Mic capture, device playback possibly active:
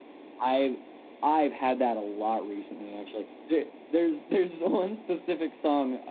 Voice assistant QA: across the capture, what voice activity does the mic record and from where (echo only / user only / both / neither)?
echo only